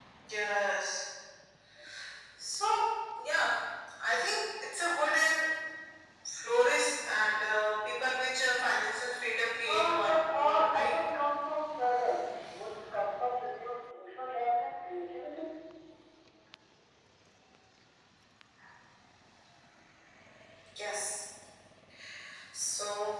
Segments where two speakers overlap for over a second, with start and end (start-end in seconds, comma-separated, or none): 9.7-11.0